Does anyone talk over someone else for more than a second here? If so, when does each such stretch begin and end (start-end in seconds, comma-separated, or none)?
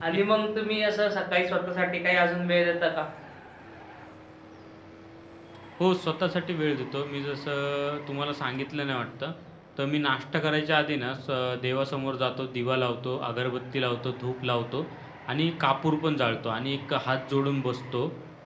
none